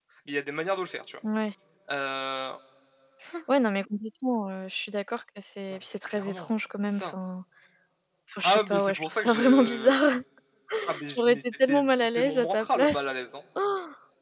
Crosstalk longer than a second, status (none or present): present